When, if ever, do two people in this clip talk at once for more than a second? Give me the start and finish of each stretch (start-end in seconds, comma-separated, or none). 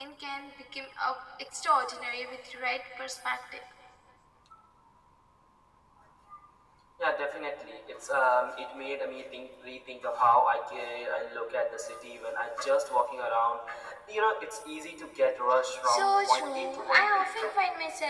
15.8-17.3